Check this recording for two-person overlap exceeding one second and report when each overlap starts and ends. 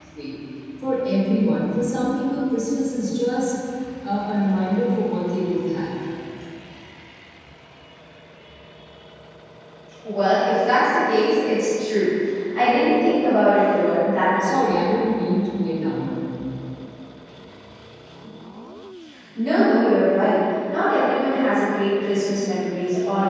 none

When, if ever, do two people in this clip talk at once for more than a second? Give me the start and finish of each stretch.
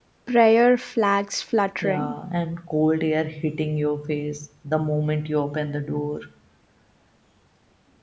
none

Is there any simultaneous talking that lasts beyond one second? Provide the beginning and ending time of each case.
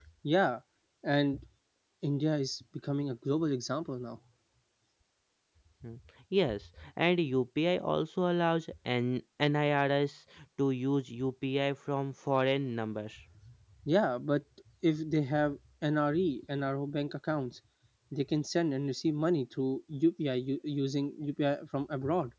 none

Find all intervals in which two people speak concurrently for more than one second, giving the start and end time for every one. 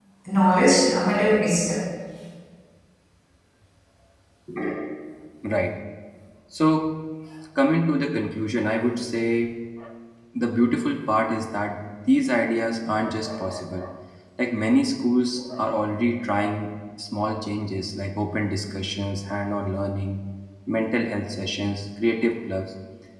none

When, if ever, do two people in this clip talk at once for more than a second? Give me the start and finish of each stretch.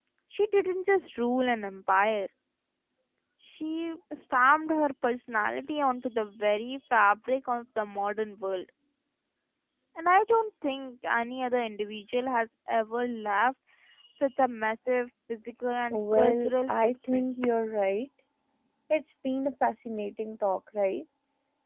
15.9-17.3

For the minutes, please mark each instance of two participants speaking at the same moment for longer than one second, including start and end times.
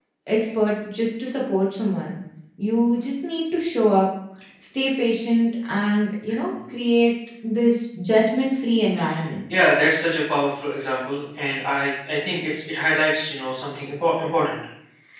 none

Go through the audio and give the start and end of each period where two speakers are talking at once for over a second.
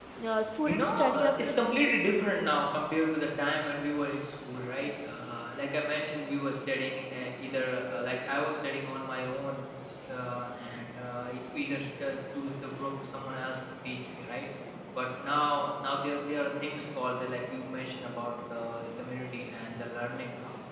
0.6-1.9

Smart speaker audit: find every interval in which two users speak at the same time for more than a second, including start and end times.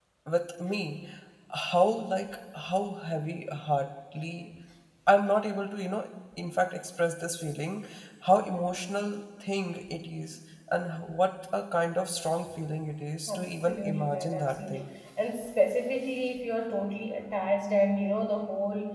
13.3-14.9

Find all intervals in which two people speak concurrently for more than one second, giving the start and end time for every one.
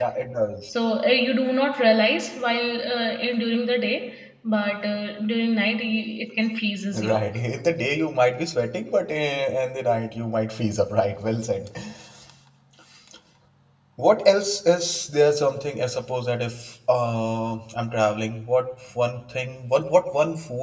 none

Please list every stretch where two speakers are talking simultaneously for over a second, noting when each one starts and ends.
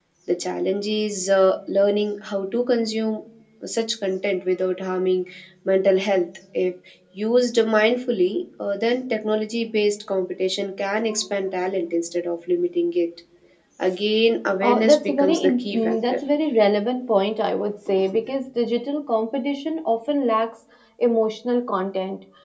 14.6-16.2

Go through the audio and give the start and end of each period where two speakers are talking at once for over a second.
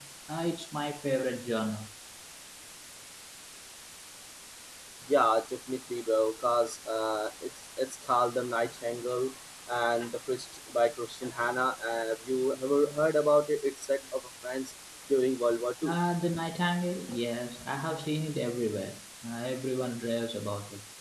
none

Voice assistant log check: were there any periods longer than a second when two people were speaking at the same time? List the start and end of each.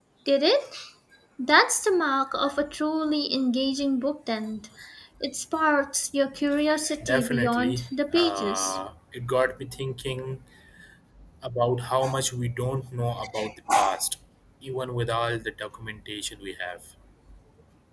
7.0-8.8

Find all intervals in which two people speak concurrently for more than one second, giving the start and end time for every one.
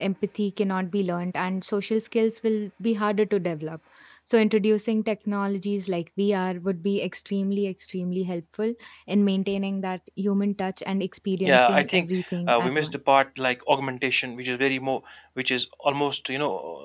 11.4-13.0

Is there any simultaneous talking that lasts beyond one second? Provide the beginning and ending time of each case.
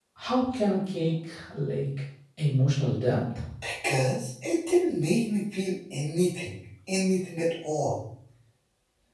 none

